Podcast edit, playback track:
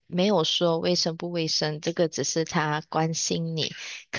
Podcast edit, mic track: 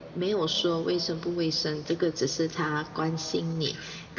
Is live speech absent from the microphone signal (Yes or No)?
Yes